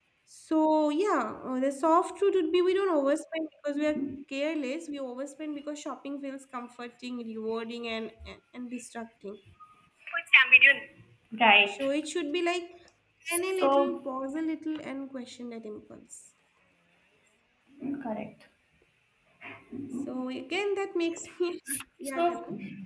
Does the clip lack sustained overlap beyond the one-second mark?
Yes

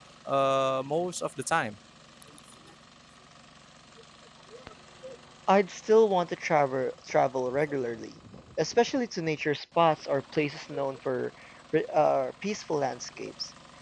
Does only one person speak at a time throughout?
Yes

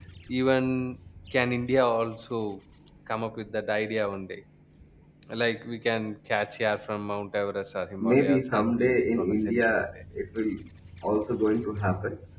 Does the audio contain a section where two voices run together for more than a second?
Yes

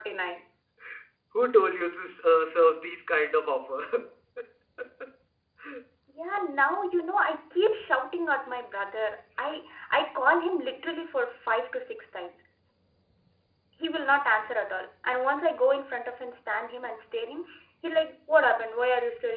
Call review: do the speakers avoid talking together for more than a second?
Yes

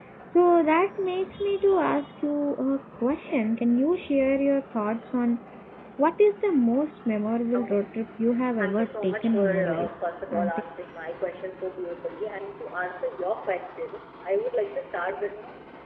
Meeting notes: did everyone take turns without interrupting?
No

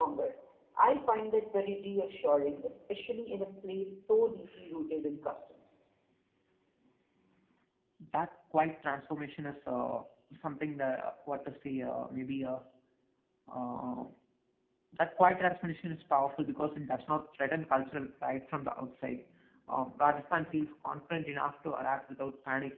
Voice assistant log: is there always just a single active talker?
Yes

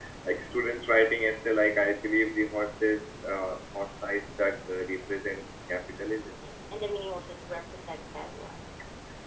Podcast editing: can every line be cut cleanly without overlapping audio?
Yes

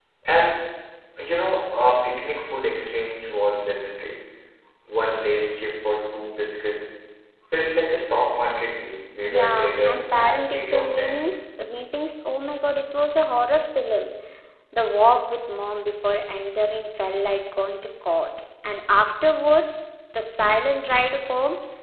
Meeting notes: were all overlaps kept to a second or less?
No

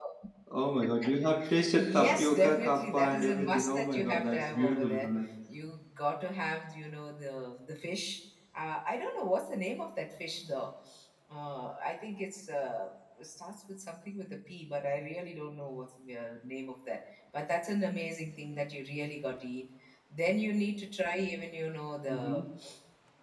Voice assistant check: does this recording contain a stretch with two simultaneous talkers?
Yes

